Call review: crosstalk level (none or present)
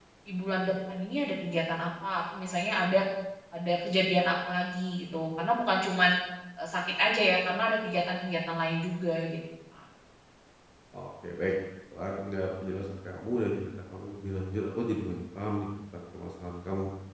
none